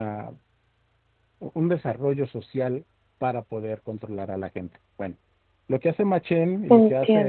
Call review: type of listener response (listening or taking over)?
listening